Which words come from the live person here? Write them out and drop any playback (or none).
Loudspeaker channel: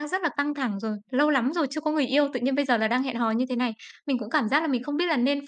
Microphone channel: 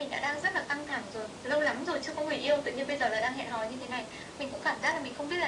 none